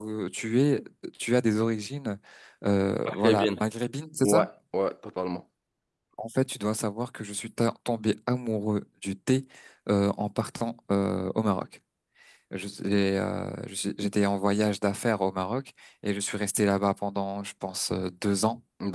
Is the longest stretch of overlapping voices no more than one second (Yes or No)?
Yes